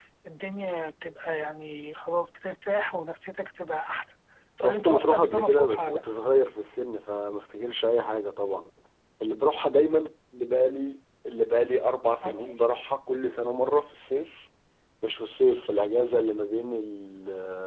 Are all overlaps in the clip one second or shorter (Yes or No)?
No